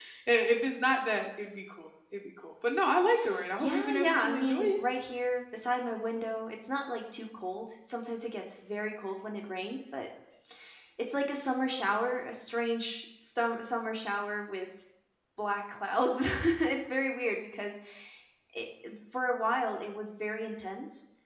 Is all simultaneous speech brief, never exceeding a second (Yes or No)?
No